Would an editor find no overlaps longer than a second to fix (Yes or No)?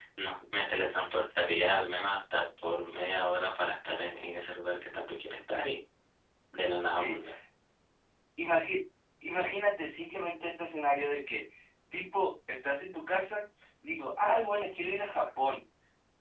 Yes